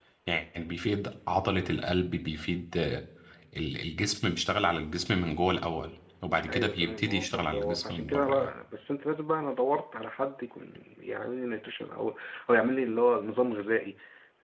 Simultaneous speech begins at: 6.4 s

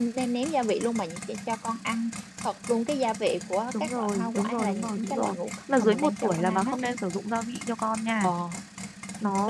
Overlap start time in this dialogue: 3.7 s

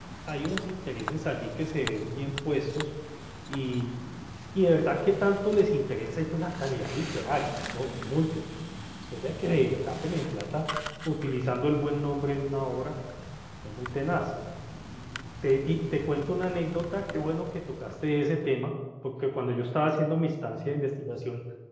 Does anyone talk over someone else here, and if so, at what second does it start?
none

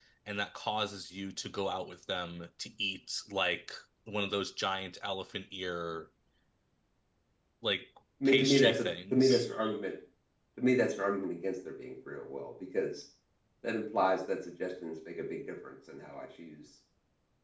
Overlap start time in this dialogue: 8.2 s

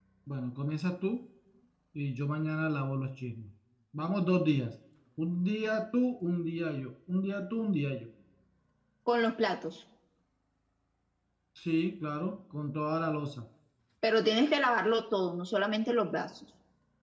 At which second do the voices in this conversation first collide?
none

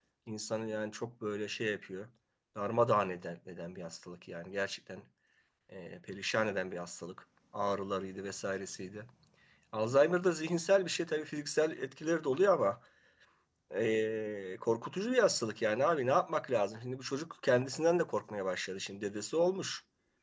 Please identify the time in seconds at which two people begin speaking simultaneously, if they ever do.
none

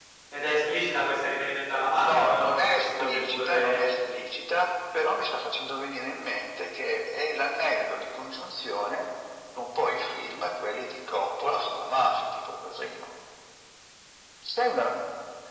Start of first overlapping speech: 2.0 s

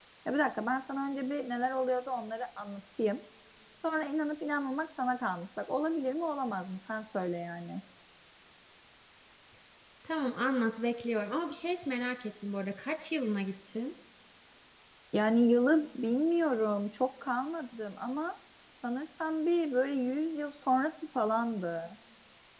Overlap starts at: none

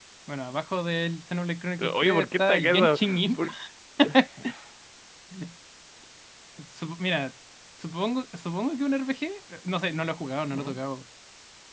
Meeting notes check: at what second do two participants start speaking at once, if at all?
1.8 s

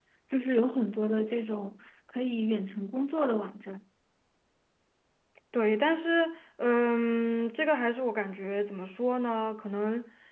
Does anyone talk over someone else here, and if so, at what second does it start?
none

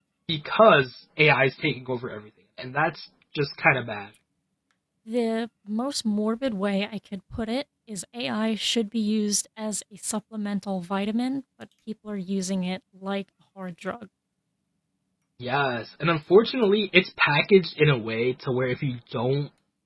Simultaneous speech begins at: none

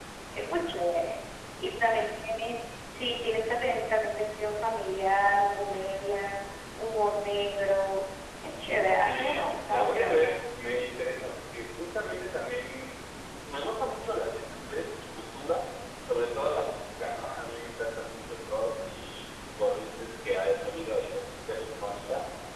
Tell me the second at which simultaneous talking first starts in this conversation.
9.1 s

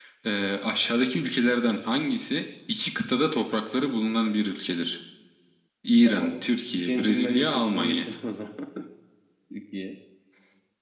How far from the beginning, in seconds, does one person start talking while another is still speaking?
6.0 s

